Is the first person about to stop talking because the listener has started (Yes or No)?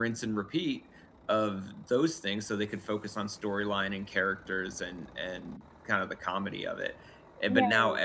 No